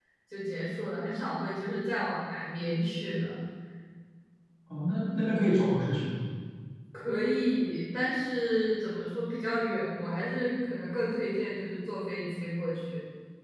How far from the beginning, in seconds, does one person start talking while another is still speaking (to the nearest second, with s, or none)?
none